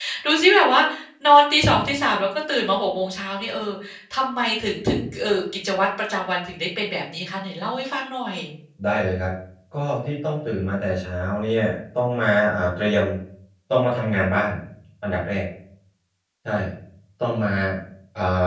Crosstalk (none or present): none